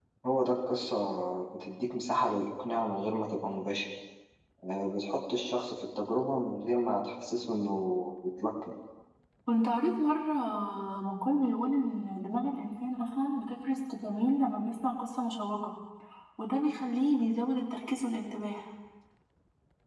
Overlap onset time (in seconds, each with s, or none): none